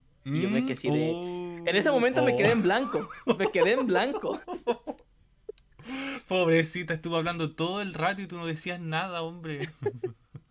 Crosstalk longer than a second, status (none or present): present